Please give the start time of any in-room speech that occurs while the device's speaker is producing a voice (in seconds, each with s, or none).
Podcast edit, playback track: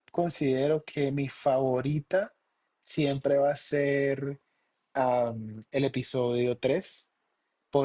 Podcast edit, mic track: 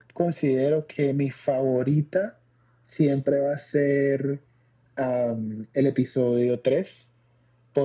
none